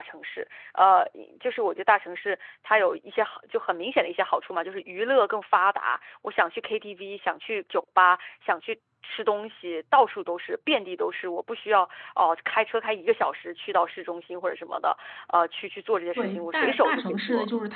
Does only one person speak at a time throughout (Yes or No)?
No